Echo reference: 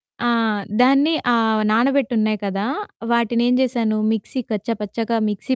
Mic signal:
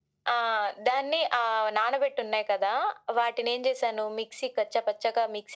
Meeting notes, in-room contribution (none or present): none